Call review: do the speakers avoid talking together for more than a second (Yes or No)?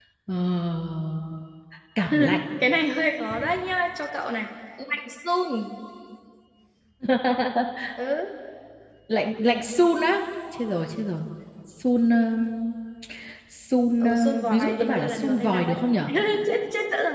No